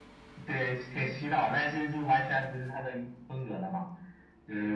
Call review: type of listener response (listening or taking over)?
taking over